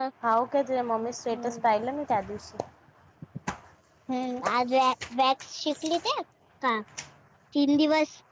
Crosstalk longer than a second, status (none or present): none